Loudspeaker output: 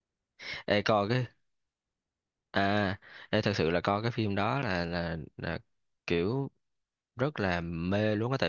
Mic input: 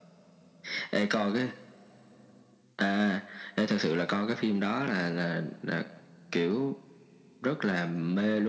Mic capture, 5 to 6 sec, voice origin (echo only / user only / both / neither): echo only